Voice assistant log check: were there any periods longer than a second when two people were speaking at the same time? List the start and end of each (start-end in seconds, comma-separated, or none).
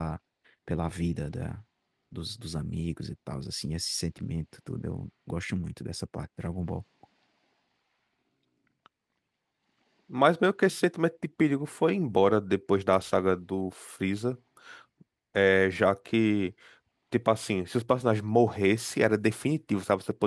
none